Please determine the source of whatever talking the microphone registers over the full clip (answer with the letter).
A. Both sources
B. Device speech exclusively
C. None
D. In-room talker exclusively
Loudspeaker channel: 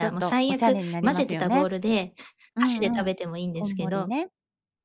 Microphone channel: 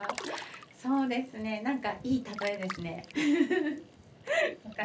D